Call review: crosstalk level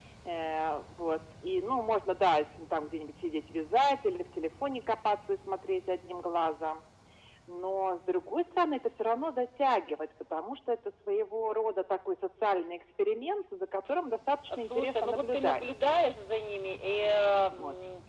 present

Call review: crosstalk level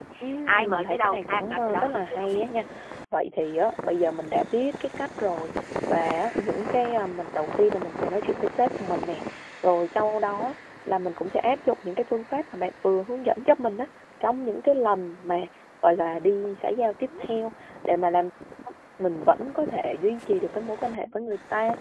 present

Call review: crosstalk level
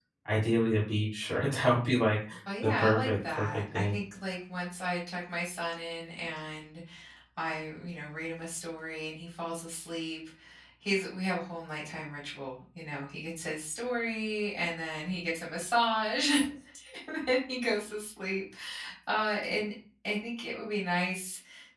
present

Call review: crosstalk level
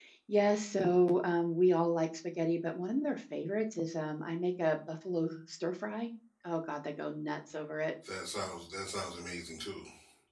none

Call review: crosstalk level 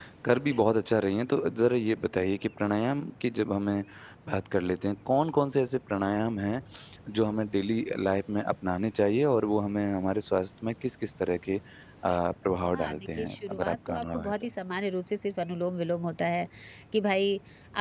present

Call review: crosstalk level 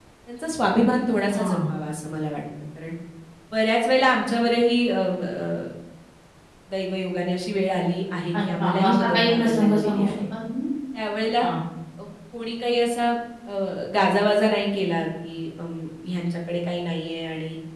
present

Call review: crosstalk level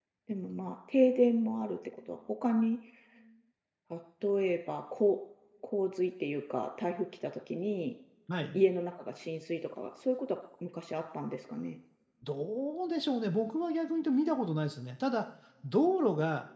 none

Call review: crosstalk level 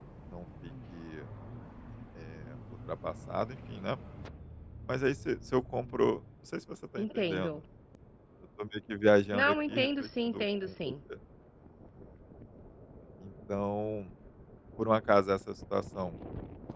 present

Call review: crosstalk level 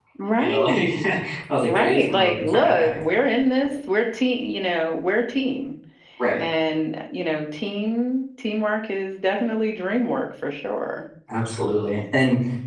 present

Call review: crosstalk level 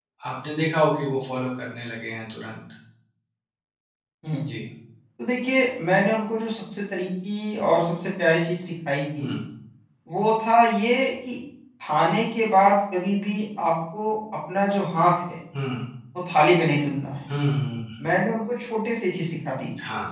none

